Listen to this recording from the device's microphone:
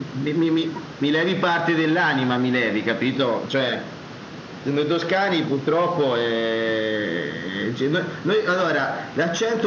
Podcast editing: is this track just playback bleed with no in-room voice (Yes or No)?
Yes